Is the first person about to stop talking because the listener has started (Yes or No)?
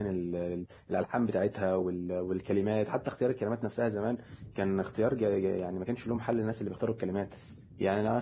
No